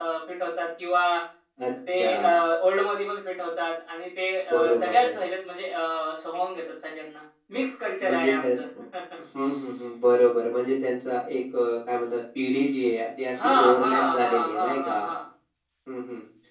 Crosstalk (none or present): present